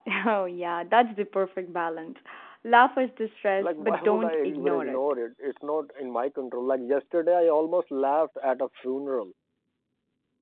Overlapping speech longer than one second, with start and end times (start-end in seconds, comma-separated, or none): 3.6-5.0